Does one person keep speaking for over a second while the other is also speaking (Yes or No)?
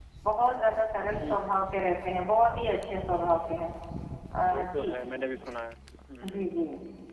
No